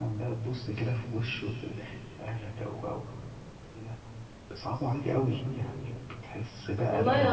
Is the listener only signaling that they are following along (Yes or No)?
No